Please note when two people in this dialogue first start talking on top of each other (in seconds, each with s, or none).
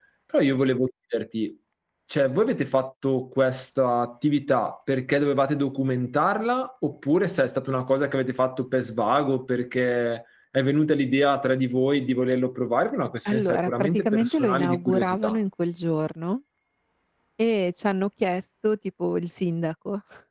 13.2 s